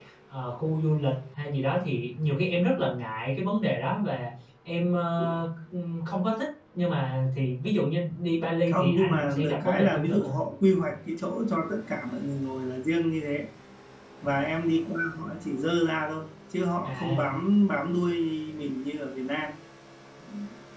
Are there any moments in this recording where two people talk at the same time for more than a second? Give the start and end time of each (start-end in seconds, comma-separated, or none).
8.7-10.3